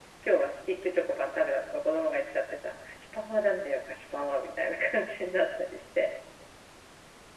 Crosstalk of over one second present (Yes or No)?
No